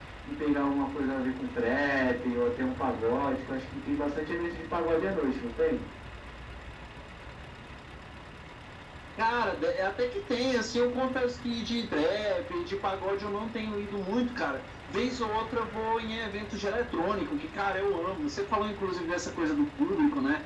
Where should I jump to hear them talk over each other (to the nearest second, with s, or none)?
none